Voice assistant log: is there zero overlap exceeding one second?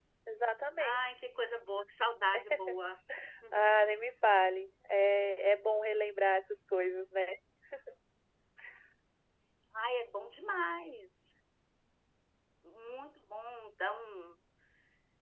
Yes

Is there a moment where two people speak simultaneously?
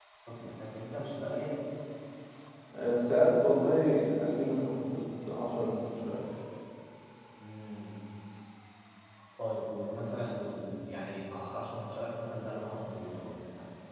No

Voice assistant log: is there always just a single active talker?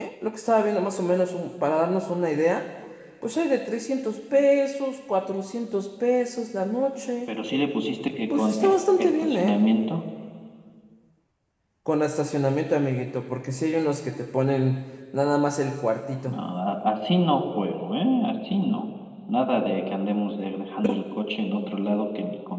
No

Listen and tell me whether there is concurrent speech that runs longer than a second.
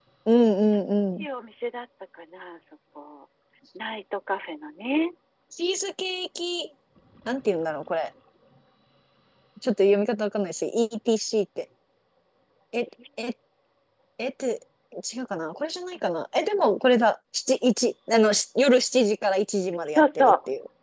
No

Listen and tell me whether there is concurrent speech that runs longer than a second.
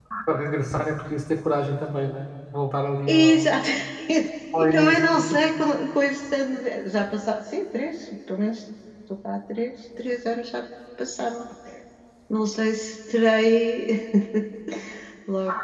No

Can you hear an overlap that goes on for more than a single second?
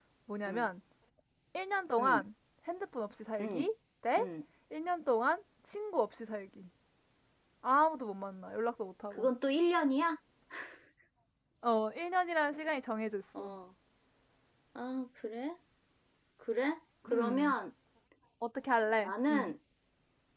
No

